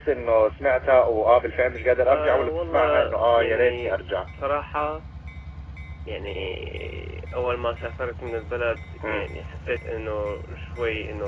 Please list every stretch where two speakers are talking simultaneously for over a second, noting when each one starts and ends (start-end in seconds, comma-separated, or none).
2.0-3.9